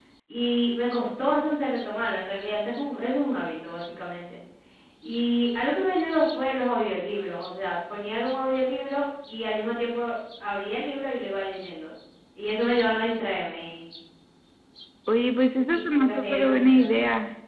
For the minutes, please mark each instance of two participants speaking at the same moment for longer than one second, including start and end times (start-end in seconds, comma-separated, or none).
15.7-16.9